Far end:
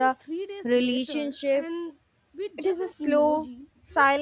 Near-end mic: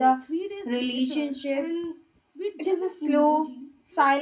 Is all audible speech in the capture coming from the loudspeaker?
Yes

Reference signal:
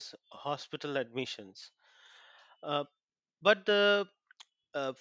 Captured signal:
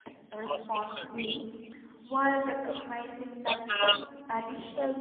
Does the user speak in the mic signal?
Yes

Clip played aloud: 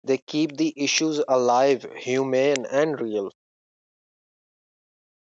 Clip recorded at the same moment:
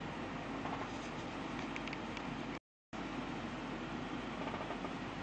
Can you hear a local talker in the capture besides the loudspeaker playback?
No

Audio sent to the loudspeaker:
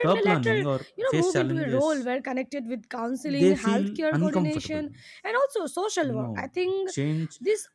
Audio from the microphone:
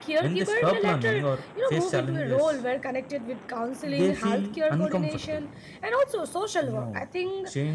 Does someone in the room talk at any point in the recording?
No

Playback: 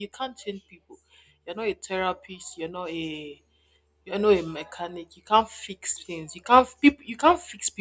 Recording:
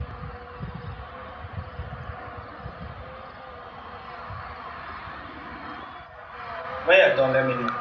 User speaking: Yes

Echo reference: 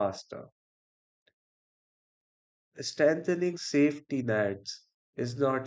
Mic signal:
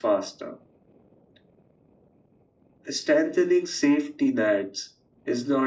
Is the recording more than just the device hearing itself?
No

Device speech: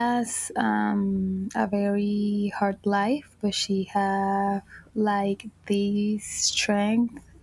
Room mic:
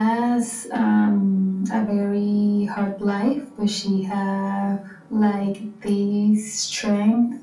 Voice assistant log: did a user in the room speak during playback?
No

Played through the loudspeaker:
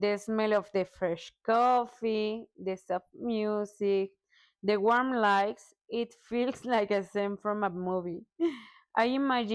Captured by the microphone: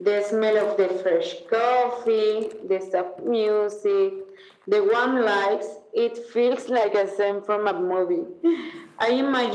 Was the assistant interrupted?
No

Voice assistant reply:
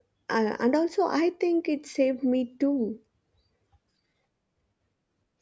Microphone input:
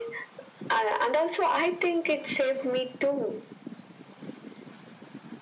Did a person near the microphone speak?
No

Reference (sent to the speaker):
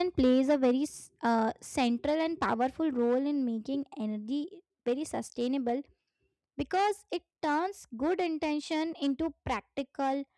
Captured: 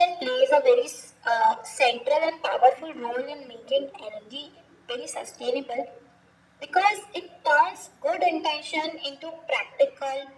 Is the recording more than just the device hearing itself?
No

